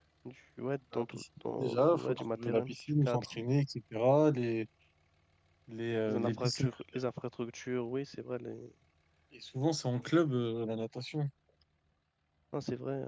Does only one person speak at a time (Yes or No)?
No